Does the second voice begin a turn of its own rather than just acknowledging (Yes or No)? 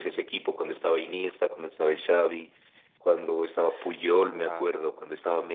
No